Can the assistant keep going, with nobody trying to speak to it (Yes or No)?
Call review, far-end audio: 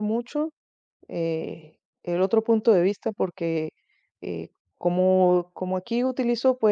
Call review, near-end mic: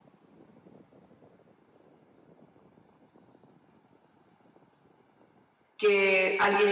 No